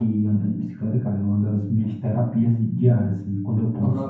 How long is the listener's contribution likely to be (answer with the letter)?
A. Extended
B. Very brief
A